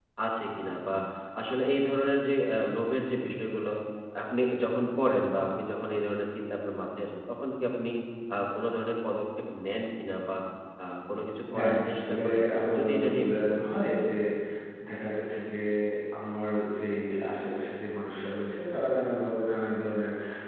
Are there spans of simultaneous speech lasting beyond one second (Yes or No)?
Yes